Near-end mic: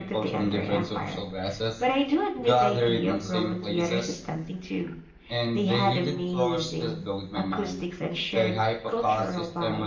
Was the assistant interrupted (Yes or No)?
No